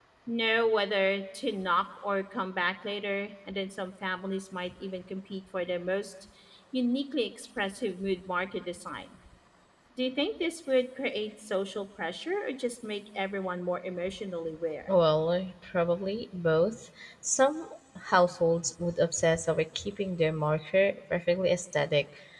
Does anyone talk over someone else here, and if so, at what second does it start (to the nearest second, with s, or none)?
none